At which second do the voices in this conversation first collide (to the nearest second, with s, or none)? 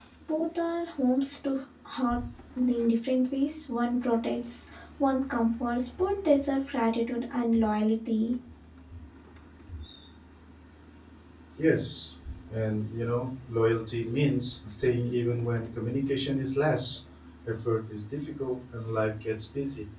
none